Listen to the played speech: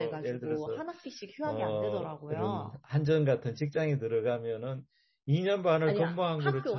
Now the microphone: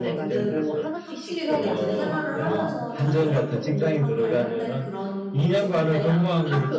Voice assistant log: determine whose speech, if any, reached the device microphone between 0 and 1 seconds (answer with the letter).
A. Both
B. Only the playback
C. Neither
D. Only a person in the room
A